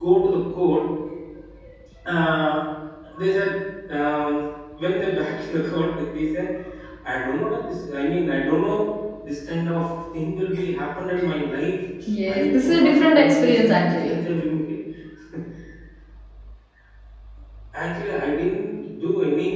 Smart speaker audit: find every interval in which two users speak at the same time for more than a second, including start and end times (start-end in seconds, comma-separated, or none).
12.3-14.2